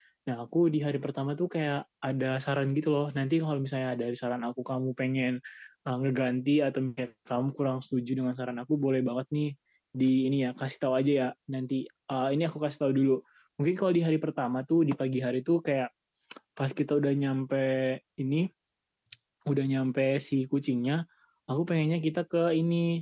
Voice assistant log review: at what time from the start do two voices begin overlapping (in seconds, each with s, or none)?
none